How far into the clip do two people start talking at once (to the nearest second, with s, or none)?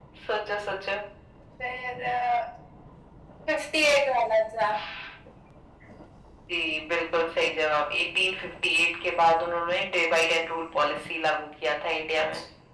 none